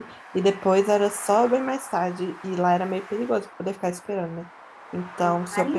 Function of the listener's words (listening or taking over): listening